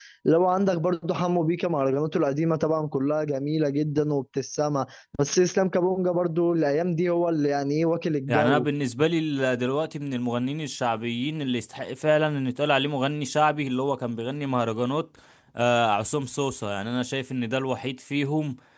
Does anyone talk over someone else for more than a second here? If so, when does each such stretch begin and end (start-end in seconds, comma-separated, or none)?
none